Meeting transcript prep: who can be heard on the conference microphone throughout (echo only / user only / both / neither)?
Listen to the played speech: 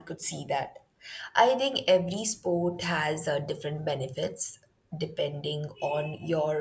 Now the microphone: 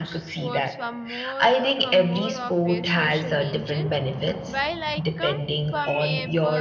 both